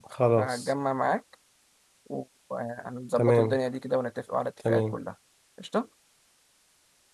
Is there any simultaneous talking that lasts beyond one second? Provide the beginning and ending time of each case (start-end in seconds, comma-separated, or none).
none